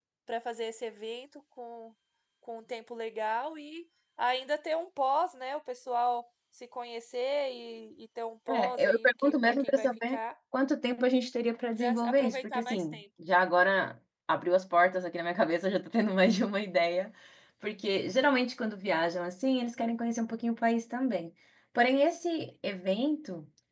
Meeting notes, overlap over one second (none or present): present